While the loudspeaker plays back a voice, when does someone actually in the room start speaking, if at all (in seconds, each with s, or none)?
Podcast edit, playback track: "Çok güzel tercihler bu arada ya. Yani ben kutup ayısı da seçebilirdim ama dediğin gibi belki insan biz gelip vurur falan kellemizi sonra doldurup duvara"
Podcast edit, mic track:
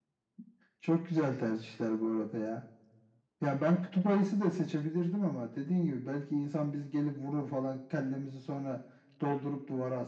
none